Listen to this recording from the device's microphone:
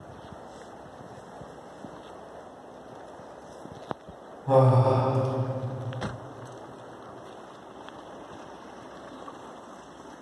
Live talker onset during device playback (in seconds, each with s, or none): 4.5 s